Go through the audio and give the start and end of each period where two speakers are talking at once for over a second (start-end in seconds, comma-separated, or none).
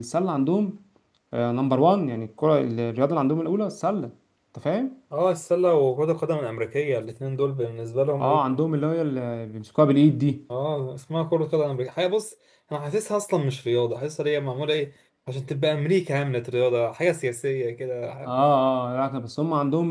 none